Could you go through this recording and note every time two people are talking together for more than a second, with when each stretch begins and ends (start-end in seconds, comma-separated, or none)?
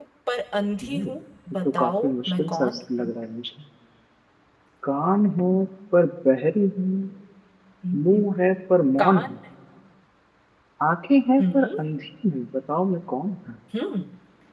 1.8-3.1